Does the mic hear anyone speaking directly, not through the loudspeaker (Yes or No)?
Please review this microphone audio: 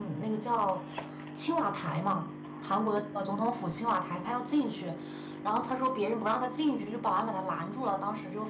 Yes